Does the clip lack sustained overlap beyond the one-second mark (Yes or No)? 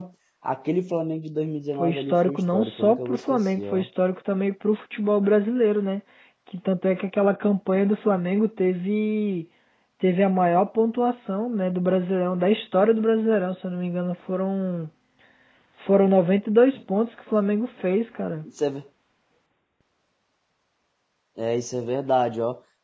No